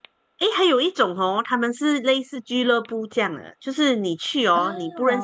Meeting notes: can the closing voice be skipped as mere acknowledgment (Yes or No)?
Yes